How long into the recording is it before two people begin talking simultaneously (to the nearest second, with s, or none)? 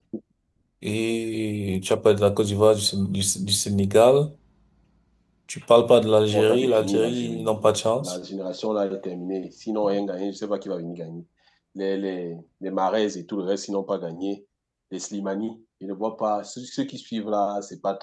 6 s